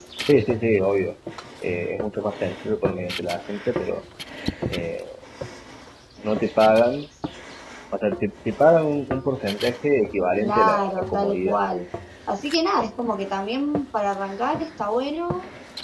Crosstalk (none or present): present